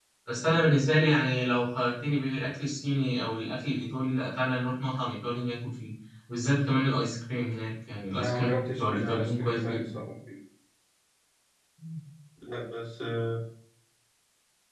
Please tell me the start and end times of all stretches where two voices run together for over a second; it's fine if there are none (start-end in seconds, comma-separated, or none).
8.1-10.0